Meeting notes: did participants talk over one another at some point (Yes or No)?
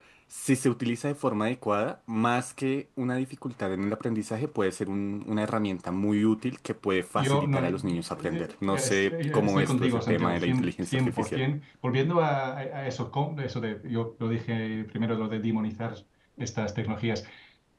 Yes